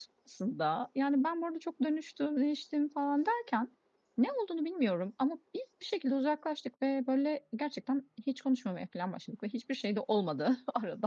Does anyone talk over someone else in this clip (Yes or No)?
No